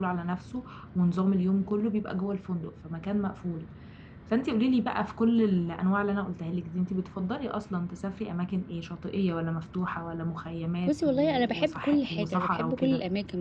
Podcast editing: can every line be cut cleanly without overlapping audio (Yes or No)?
No